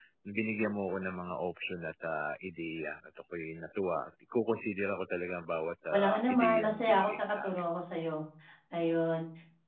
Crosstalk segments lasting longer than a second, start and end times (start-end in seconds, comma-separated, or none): 5.9-7.5